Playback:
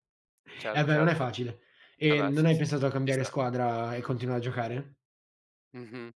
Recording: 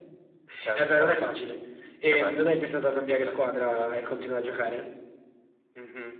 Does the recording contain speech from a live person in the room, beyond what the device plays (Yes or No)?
No